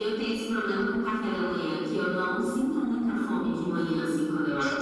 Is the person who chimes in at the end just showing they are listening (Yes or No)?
No